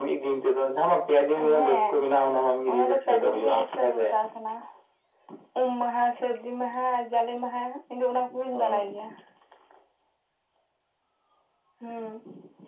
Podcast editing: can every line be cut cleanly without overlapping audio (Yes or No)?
No